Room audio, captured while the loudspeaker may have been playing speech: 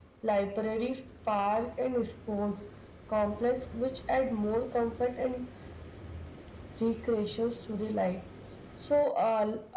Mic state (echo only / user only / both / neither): echo only